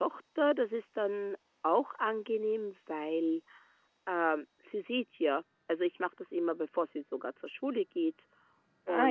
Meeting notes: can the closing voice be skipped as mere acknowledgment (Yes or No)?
Yes